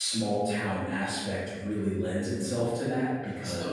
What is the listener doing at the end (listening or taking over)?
listening